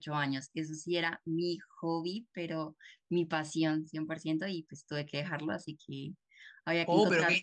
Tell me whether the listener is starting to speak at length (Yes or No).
Yes